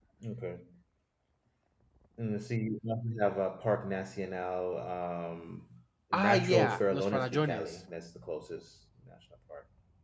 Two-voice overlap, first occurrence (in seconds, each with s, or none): 6.1 s